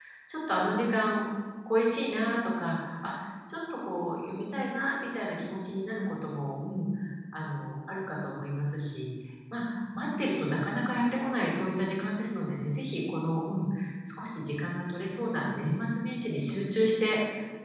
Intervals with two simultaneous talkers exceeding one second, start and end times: none

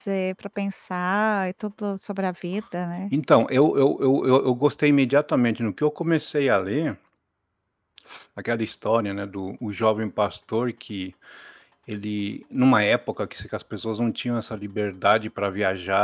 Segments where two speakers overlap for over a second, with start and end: none

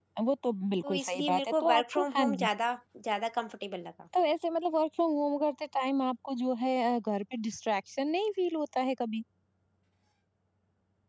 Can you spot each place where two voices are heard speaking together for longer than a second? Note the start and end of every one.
0.8-2.5

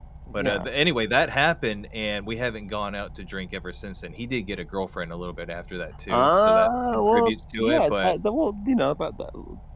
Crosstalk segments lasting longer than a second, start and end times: 6.1-8.1

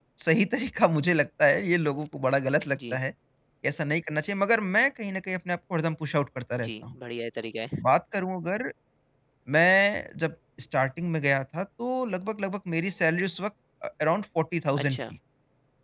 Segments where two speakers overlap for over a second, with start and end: none

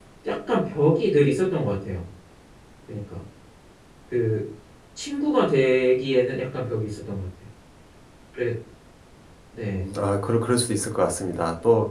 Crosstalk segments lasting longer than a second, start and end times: none

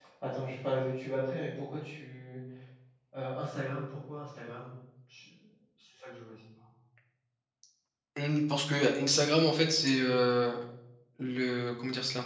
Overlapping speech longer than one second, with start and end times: none

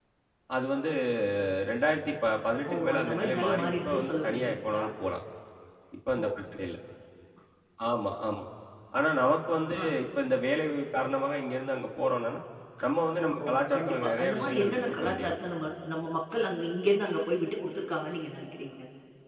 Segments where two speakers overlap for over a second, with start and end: 2.7-4.9, 13.2-15.3

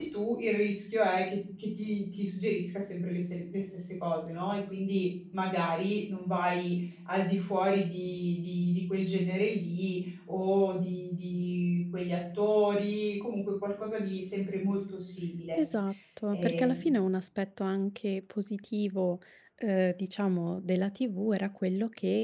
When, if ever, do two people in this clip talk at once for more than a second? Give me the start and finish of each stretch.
none

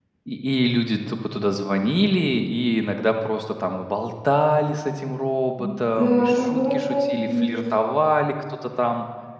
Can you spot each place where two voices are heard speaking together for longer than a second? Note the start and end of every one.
6.0-7.5

